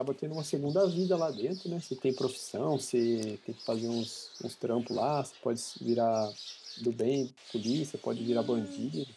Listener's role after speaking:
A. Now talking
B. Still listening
A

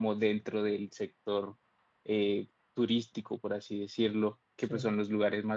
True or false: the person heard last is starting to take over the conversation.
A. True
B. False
B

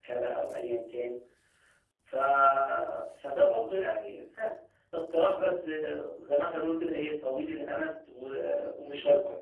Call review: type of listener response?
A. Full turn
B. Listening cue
B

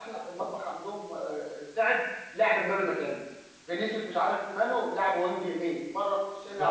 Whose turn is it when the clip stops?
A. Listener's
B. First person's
A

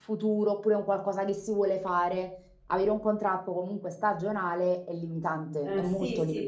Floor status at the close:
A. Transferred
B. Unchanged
A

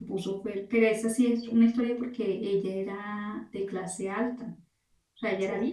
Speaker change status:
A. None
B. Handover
A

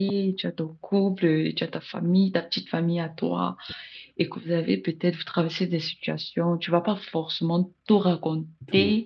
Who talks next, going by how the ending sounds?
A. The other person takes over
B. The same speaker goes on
B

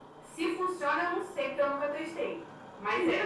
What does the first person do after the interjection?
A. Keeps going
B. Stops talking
B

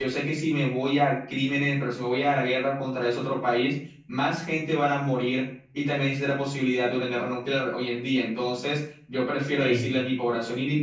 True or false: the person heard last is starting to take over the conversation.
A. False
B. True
A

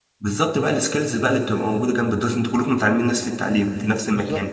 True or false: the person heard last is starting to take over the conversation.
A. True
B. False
B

